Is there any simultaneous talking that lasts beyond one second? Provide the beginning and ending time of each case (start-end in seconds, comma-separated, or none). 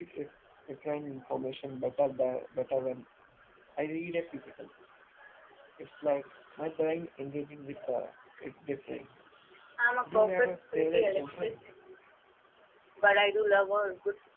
10.1-11.5